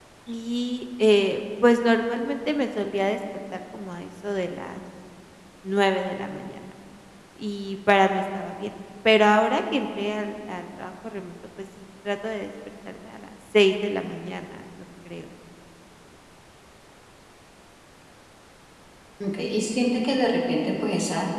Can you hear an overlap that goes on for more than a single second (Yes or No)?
No